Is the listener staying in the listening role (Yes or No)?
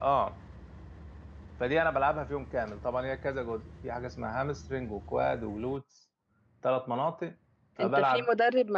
No